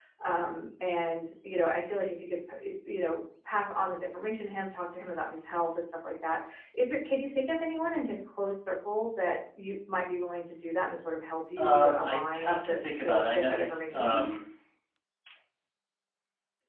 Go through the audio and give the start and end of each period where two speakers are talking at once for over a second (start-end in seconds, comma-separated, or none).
11.6-14.4